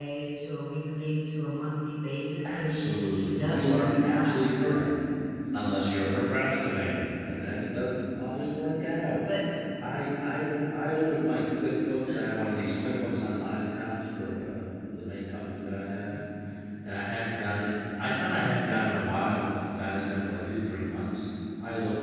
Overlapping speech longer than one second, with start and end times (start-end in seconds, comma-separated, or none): 2.5-4.3